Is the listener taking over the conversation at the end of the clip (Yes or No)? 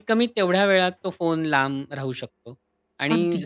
No